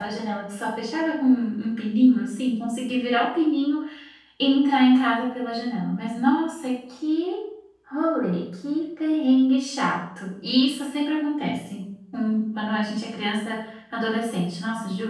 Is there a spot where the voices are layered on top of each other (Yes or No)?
No